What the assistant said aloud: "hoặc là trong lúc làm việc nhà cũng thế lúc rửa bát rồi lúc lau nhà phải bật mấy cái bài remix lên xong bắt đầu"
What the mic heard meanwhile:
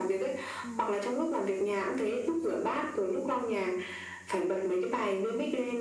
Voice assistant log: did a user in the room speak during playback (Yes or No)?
Yes